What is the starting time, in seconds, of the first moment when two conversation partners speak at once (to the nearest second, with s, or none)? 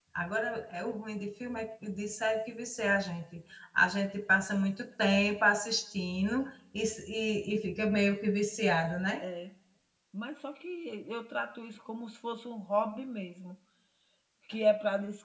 none